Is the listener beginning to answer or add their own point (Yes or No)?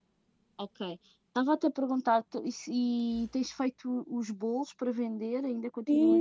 Yes